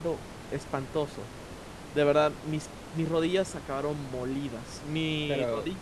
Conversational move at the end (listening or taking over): listening